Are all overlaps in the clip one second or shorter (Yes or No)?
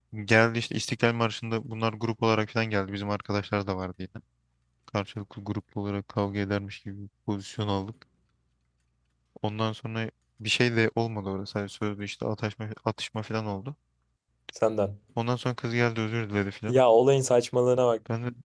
Yes